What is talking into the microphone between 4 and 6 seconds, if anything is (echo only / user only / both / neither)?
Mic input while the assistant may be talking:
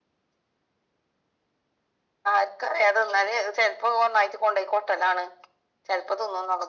echo only